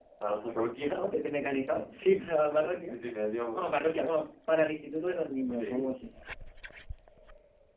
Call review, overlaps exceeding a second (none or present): none